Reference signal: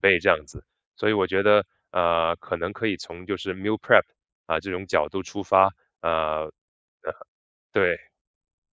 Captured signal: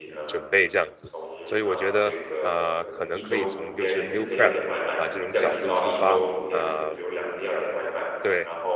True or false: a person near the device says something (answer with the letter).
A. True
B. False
A